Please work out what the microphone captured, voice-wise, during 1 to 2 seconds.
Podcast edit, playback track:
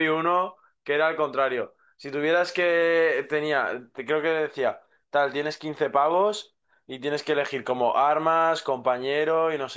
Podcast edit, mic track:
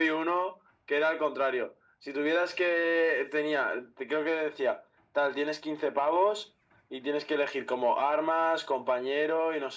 echo only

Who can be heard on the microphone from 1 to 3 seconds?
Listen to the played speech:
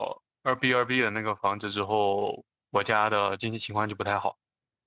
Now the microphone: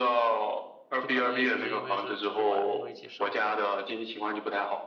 both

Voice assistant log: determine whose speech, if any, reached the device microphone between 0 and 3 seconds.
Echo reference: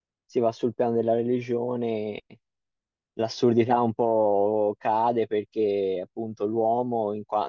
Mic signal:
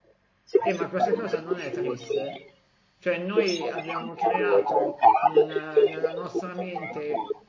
both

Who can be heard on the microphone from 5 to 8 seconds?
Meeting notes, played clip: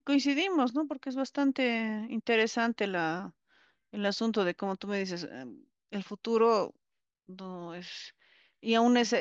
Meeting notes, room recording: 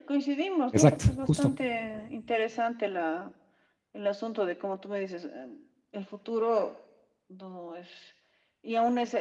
echo only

